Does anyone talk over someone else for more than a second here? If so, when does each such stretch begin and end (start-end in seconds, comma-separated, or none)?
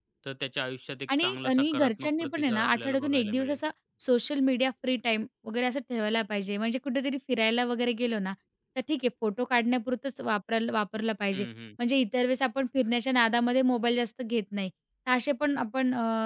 1.2-3.6